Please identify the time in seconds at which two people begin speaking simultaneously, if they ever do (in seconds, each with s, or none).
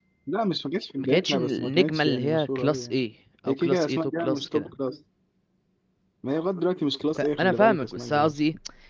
1.0 s